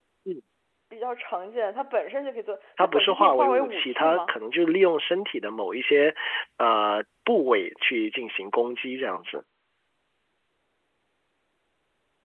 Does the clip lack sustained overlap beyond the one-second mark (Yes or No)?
No